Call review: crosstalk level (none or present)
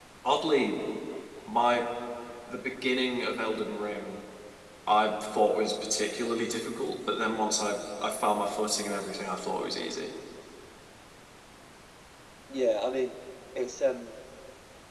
none